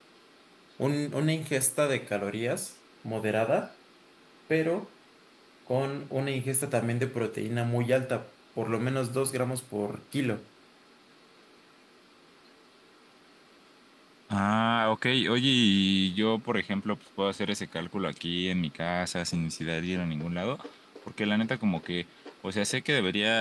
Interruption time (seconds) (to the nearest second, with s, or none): none